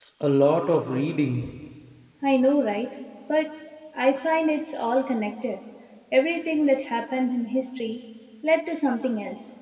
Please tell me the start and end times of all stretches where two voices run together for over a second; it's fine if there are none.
none

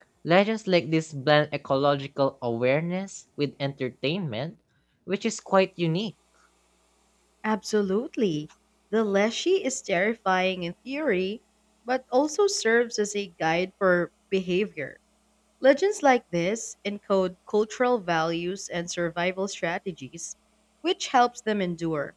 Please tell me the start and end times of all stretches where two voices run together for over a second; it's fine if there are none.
none

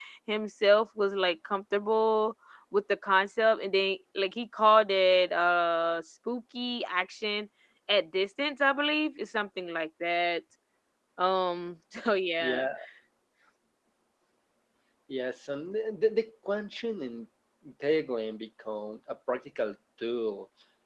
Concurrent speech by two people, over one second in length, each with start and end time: none

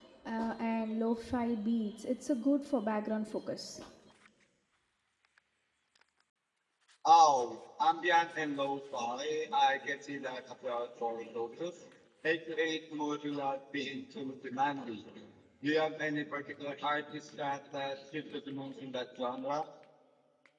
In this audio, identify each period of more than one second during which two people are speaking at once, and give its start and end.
none

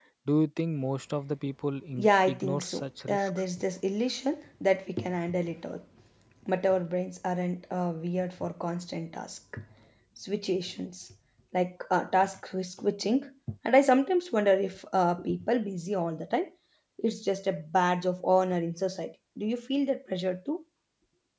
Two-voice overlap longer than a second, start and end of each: 1.9-3.3

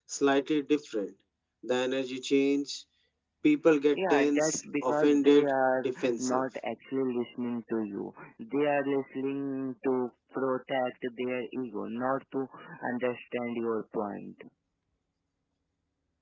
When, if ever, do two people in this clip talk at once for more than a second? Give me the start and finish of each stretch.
4.0-6.4

